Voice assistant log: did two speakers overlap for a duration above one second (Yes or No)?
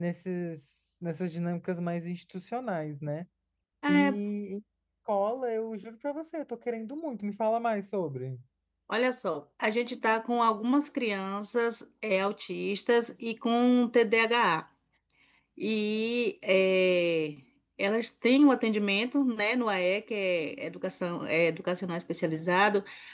No